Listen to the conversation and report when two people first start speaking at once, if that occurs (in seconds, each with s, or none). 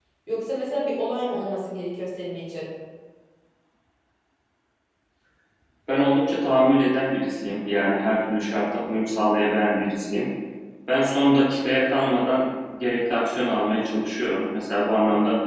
none